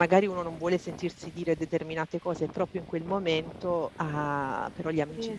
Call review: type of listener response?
taking over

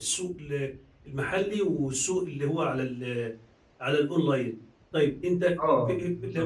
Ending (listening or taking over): listening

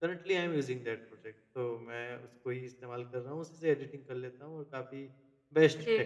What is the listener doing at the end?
taking over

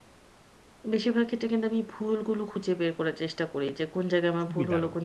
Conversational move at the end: listening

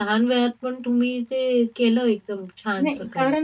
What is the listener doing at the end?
taking over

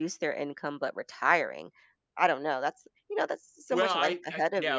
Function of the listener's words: taking over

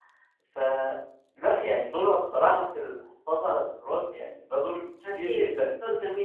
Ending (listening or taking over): taking over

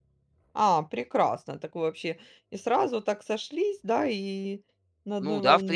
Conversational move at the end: taking over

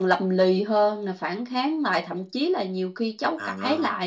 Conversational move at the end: listening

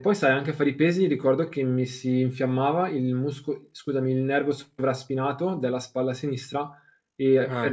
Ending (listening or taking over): listening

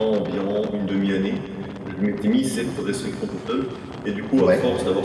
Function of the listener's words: listening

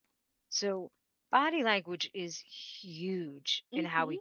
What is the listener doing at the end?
listening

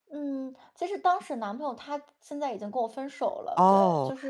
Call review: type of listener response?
taking over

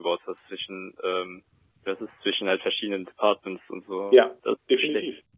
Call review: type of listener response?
taking over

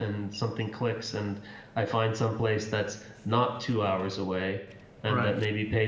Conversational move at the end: listening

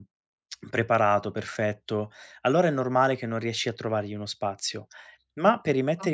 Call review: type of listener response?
listening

